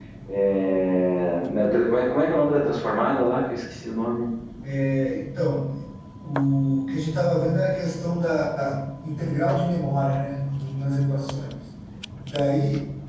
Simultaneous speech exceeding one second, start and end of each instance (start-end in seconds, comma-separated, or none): none